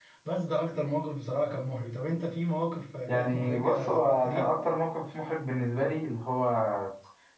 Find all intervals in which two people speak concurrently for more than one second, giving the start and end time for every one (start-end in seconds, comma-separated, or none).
3.1-4.5